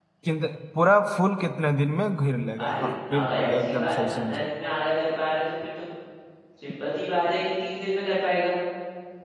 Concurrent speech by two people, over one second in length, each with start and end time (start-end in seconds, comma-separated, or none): 2.6-4.5